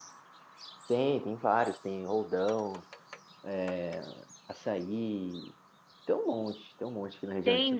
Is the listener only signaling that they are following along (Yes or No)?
No